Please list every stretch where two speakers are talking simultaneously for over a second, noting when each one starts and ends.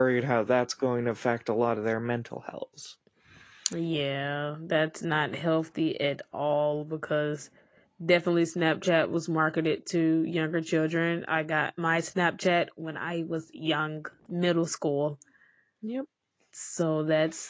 none

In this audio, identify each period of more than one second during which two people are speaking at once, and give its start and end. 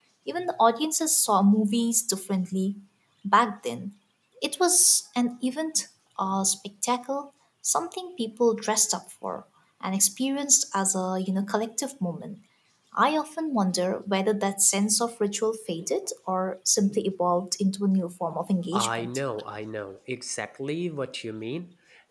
none

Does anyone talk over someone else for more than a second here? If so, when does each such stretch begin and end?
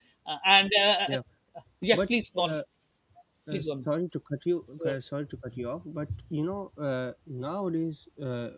none

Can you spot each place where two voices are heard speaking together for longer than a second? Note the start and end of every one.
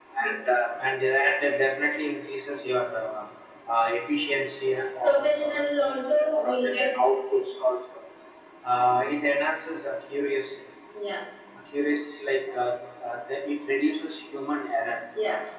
5.0-6.9

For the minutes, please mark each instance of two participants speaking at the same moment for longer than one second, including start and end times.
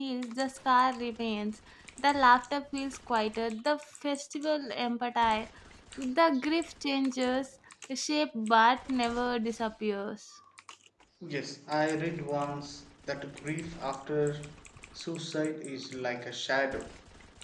none

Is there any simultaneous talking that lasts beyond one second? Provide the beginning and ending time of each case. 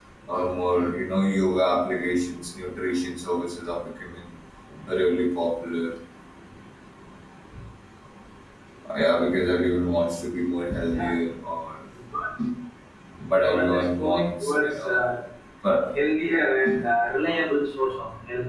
13.3-15.0

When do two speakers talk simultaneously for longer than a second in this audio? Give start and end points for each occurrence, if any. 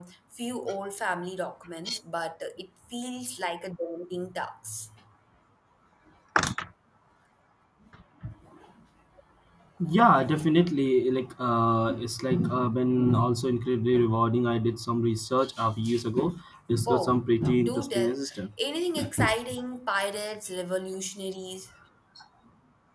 16.9-18.1

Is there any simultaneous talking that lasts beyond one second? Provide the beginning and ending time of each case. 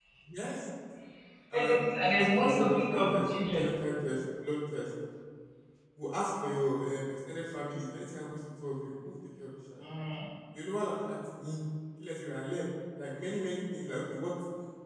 1.5-3.6

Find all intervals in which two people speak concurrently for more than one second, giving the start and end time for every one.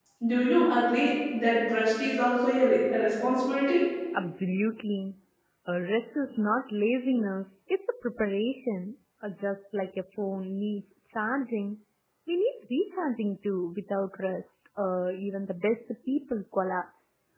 none

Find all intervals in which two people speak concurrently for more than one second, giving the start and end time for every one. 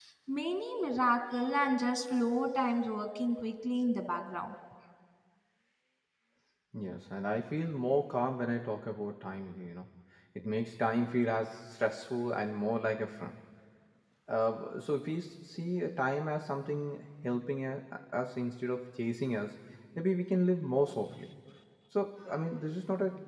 none

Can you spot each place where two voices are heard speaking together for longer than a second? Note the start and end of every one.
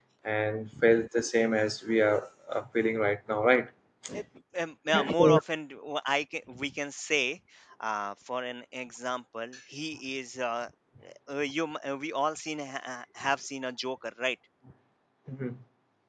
none

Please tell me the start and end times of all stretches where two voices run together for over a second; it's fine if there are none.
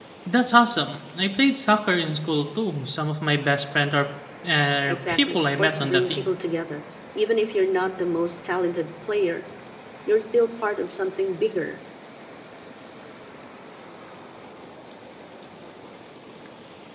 4.9-6.3

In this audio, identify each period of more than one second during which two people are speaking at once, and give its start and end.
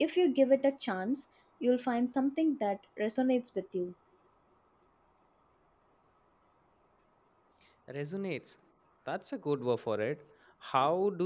none

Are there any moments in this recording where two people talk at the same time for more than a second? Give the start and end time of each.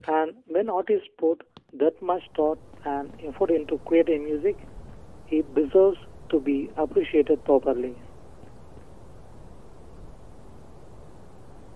none

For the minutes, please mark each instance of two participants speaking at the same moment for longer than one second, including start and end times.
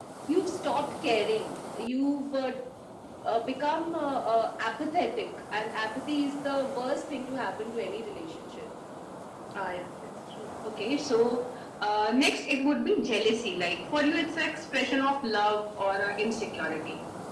none

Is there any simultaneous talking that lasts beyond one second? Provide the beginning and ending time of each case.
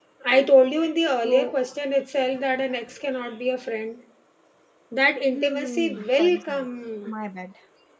5.3-6.7

